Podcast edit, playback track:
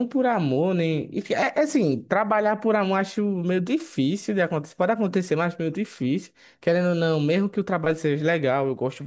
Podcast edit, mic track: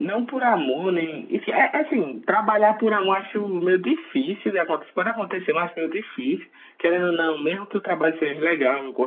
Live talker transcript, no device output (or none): none